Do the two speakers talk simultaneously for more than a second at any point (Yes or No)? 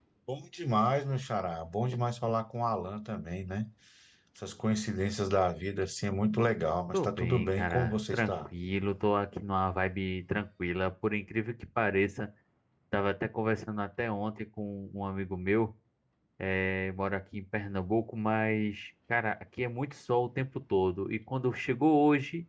Yes